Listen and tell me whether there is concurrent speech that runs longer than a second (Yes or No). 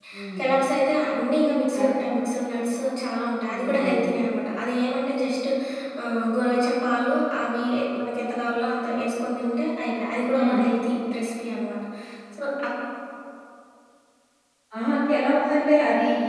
No